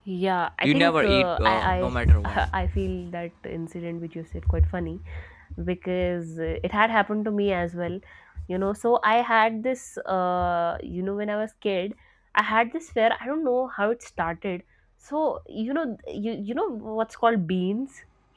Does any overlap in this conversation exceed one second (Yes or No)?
Yes